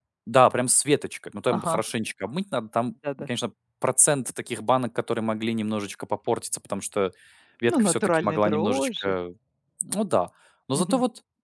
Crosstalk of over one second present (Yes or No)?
Yes